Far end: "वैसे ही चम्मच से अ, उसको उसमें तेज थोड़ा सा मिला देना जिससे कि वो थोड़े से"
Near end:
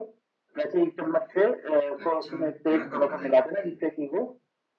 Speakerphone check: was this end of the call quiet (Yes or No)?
No